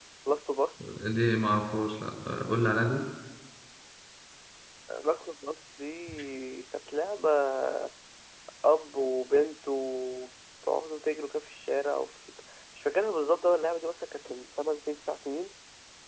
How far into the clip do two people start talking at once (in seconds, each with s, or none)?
none